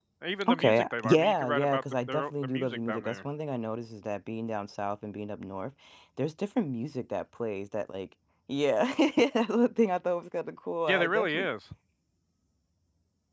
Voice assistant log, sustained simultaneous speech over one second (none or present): present